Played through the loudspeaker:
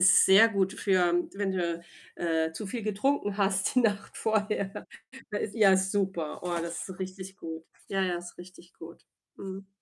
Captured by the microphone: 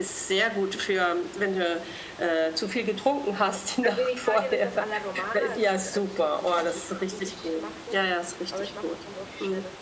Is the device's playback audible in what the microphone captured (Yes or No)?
Yes